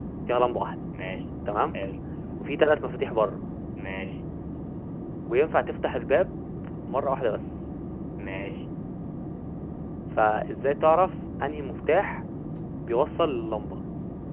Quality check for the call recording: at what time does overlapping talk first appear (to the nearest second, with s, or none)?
none